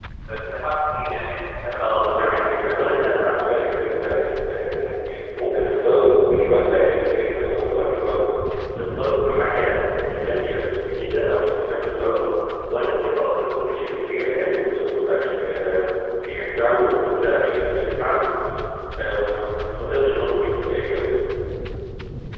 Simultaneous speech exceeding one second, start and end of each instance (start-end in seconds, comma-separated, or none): 1.8-3.1